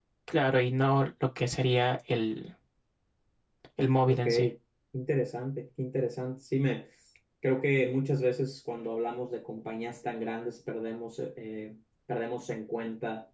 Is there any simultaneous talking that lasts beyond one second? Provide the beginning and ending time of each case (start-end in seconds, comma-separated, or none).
none